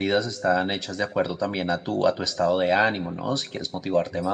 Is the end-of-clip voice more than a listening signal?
No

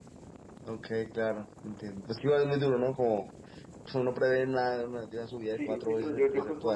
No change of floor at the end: No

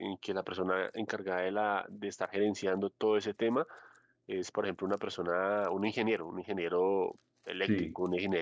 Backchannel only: Yes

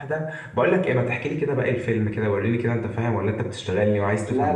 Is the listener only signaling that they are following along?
No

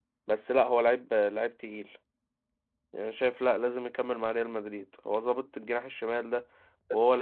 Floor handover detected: Yes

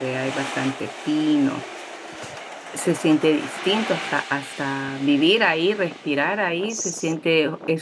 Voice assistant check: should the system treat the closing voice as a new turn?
No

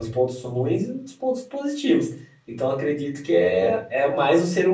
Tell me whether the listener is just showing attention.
Yes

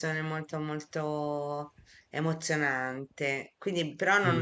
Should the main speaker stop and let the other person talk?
No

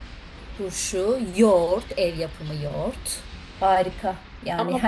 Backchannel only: No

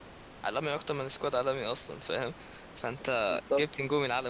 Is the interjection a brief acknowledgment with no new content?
Yes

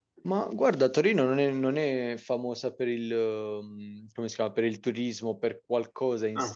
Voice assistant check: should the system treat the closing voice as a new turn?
No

